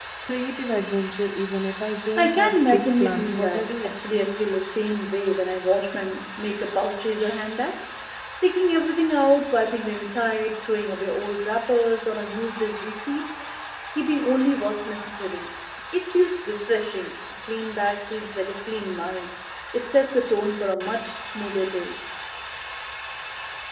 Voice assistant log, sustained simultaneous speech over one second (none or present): present